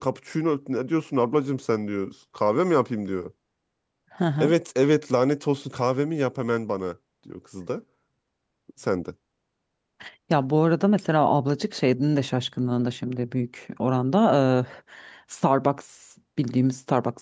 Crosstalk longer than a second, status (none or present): none